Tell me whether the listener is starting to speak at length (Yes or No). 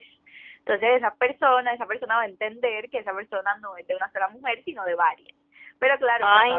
No